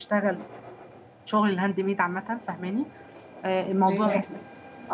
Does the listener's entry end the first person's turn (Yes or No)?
No